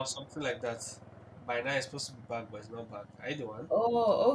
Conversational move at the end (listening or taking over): taking over